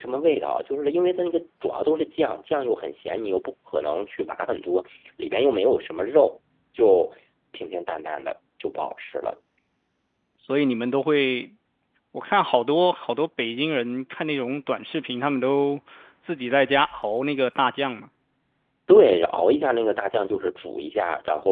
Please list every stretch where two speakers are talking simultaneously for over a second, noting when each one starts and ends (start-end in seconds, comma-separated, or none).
none